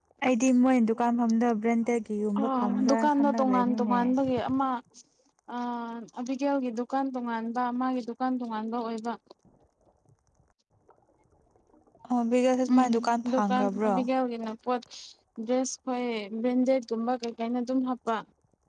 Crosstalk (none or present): present